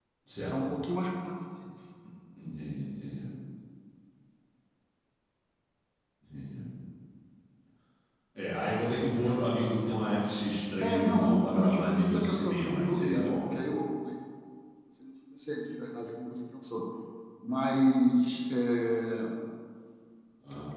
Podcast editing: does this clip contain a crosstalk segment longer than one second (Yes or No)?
Yes